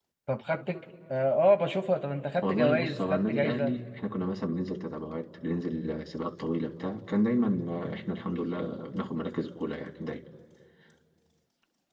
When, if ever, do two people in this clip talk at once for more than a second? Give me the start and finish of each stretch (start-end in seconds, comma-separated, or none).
2.4-3.7